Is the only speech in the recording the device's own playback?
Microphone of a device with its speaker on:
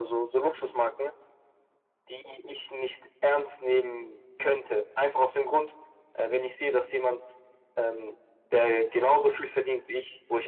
Yes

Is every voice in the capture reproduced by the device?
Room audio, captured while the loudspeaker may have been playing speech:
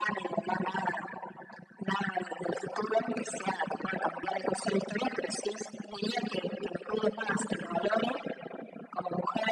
Yes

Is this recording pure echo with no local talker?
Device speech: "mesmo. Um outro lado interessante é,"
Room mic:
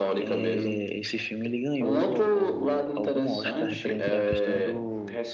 No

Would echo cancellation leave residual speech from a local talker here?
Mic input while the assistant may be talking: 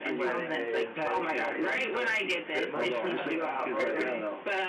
Yes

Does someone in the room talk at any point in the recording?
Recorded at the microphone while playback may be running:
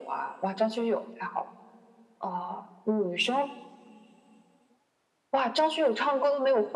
No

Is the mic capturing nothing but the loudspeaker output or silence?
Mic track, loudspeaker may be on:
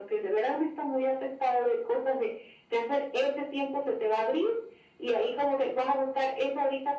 Yes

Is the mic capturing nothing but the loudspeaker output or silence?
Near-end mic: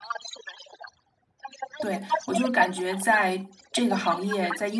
No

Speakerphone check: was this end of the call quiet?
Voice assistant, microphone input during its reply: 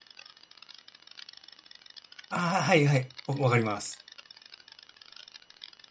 No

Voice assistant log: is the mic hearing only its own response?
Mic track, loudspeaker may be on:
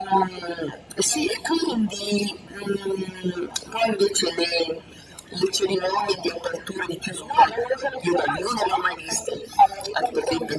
Yes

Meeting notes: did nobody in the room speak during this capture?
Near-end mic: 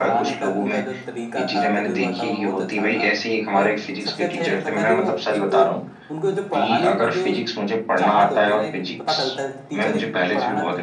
No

